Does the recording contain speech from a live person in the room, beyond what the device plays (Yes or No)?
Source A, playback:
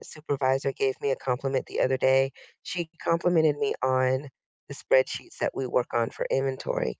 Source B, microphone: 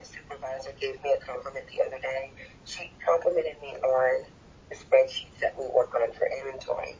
No